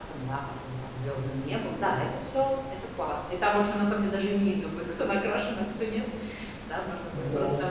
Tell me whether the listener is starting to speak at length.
No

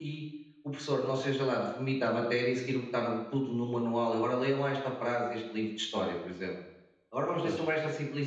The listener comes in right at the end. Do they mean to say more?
No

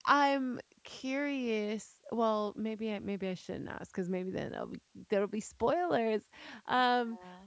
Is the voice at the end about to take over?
No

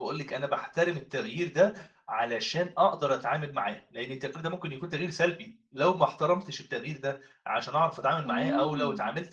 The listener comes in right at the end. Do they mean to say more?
No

